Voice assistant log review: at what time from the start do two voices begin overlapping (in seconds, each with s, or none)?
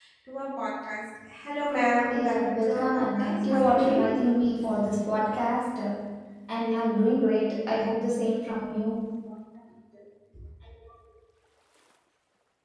2.1 s